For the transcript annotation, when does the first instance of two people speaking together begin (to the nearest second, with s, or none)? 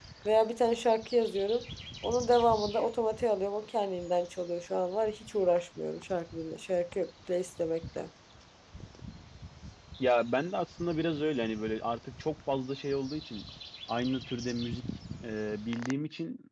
none